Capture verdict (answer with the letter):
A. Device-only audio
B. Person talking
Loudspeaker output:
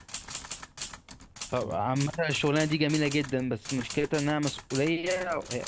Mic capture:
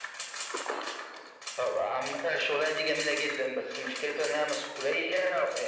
A